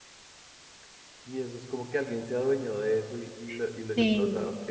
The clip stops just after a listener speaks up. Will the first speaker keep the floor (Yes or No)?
No